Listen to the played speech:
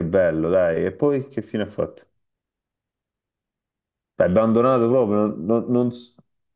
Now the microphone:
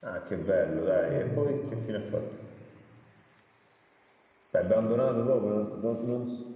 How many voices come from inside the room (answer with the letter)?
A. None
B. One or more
B